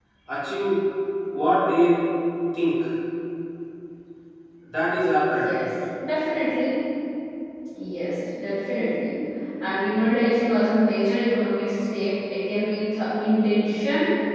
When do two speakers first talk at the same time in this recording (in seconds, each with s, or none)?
none